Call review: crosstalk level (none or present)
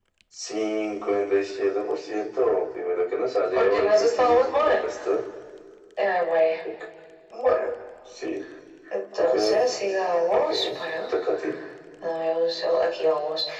present